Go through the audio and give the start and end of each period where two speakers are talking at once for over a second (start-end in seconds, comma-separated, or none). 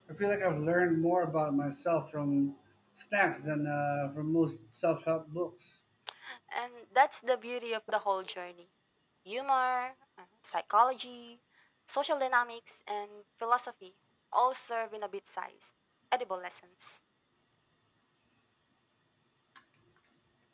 none